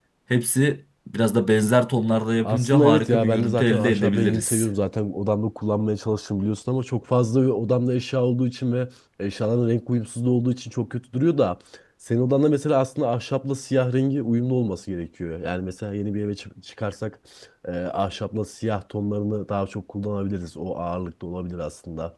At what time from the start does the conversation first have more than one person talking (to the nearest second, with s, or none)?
2 s